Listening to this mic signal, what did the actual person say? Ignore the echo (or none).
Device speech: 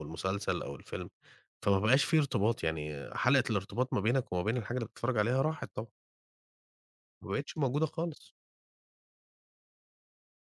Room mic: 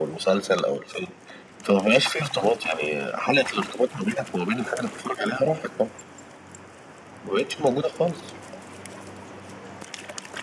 none